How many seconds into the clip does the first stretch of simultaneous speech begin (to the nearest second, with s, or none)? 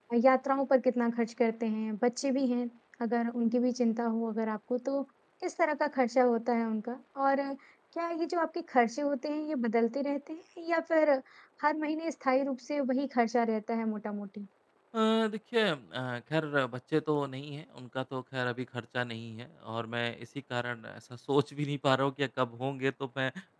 none